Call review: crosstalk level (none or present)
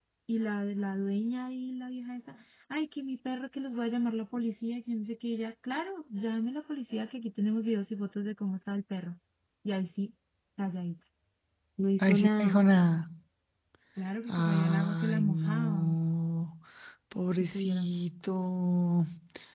present